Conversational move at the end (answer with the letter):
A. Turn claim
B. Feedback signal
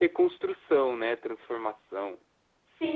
A